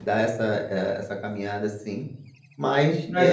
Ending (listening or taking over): taking over